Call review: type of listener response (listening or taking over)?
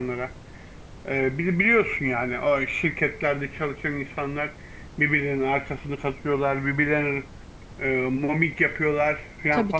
listening